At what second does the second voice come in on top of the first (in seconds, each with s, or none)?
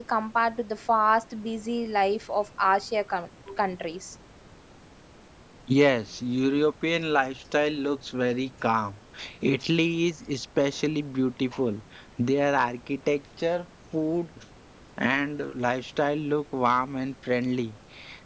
none